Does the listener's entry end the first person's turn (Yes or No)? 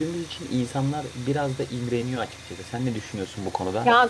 Yes